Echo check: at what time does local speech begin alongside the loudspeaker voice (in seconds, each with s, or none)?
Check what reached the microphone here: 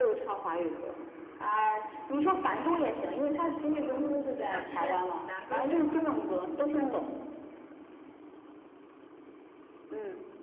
2.4 s